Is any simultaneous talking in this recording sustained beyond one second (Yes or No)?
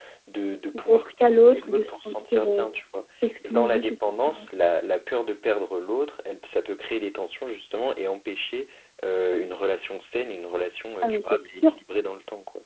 Yes